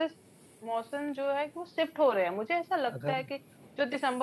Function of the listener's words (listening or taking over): listening